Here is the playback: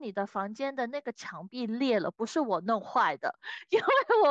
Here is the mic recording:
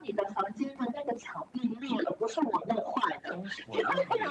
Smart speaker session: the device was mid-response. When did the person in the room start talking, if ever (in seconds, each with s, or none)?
3.3 s